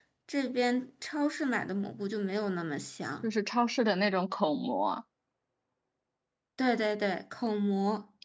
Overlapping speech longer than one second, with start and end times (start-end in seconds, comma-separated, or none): none